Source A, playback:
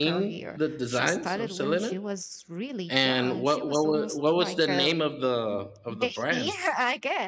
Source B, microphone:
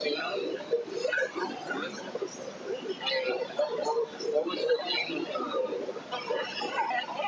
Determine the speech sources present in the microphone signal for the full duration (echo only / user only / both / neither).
echo only